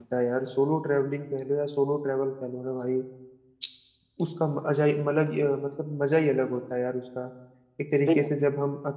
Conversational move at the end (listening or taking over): listening